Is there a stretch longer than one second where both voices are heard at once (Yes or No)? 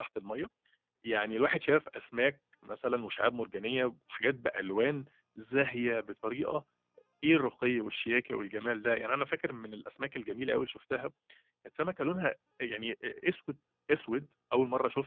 No